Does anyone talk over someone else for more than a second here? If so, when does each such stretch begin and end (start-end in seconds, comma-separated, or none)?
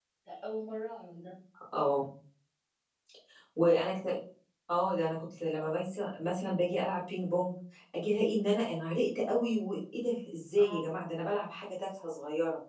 none